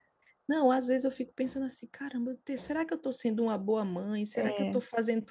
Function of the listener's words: listening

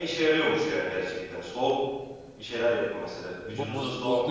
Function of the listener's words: taking over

